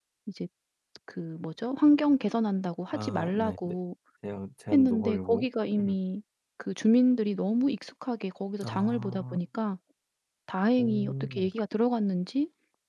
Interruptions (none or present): present